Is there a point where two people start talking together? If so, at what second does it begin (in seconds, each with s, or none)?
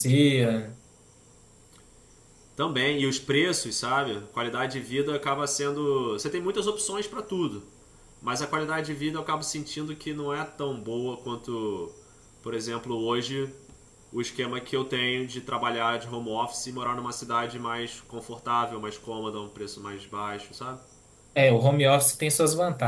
none